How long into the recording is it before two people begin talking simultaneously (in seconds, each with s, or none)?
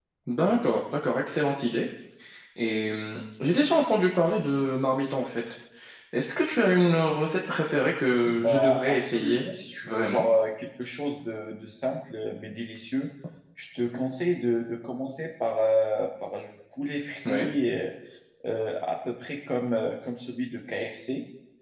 8.2 s